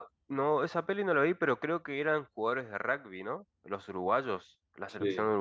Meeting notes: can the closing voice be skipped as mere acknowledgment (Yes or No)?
Yes